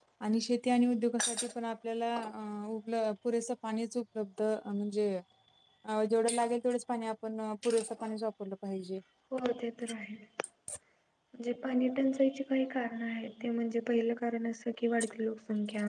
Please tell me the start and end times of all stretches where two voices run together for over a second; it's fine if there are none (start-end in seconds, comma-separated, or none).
none